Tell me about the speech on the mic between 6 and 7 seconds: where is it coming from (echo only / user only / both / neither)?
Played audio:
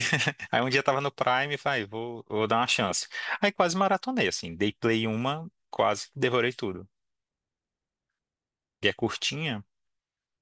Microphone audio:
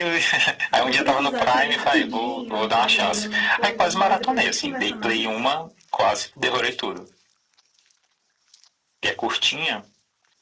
echo only